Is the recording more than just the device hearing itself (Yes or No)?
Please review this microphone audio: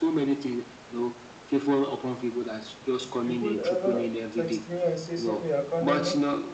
Yes